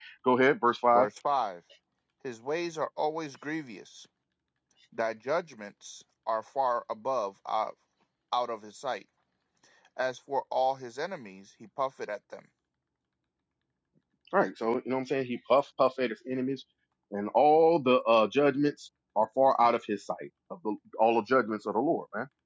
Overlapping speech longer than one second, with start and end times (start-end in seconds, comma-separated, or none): none